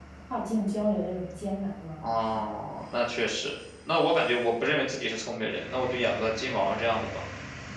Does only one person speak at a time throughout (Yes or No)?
Yes